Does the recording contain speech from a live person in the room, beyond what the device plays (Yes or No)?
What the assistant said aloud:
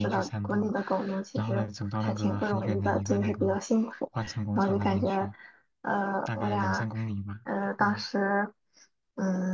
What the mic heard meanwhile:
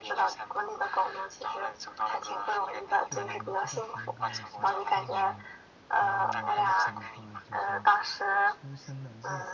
Yes